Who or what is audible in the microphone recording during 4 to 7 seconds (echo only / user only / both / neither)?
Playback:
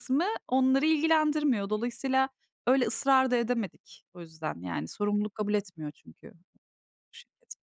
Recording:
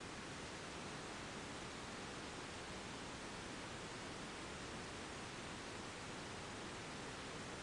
neither